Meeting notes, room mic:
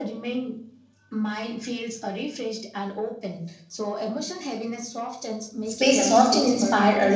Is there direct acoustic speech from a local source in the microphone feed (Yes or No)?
Yes